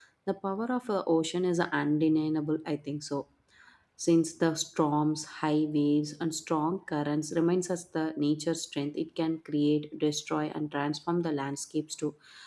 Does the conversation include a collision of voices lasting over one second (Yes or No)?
No